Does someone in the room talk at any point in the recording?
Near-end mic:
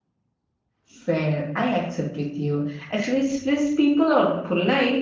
Yes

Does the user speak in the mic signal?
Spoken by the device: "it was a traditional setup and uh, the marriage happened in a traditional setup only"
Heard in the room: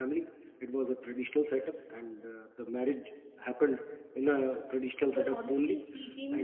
Yes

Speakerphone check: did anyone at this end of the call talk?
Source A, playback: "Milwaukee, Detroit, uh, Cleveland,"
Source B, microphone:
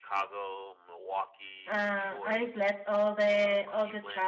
Yes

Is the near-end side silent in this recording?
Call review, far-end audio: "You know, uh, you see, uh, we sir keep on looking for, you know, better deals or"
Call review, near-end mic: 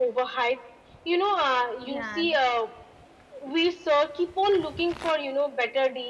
No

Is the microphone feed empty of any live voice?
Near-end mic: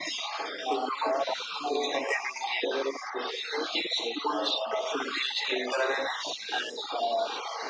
Yes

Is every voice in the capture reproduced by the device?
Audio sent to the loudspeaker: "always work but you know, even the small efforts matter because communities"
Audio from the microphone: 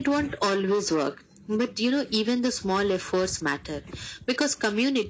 Yes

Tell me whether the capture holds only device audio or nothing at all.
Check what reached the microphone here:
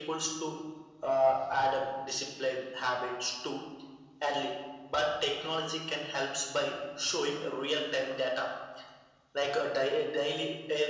Yes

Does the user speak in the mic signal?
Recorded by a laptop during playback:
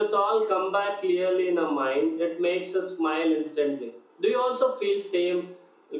No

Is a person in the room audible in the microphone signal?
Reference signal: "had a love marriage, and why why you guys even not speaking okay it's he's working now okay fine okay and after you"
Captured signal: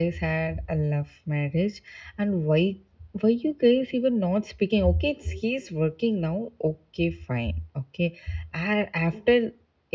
No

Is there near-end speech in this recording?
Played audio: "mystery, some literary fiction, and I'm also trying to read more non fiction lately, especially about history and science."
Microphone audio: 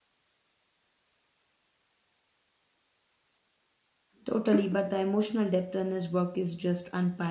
Yes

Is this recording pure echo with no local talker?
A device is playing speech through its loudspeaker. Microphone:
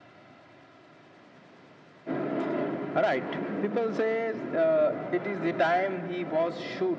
Yes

